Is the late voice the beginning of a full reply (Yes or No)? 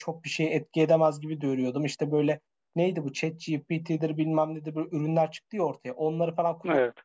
No